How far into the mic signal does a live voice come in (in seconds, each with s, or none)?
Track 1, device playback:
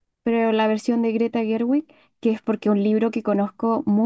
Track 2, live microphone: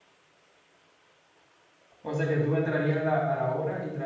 2.0 s